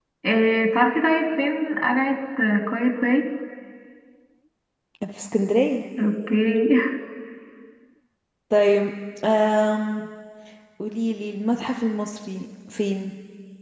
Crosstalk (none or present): none